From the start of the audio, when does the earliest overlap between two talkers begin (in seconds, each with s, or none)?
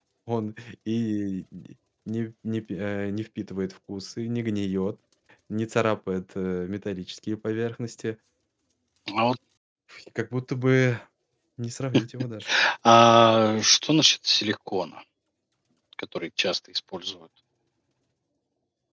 none